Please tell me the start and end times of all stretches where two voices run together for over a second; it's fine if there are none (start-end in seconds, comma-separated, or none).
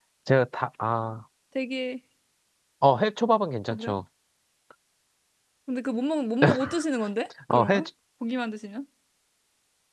none